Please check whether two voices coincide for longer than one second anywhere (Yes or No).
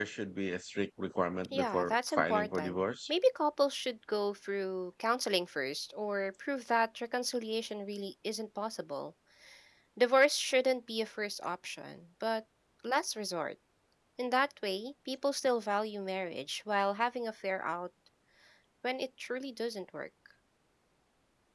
Yes